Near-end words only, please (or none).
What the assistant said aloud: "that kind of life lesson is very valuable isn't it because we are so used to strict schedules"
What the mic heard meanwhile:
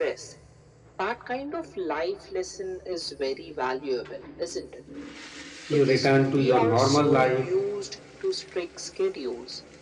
You return to your normal life,